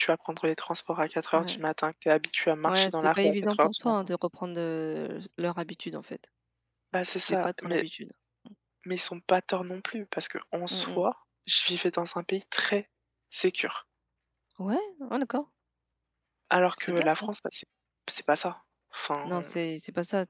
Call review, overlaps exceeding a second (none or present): present